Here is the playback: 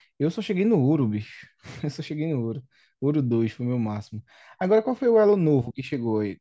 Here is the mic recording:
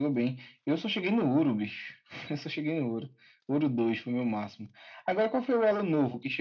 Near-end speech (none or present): none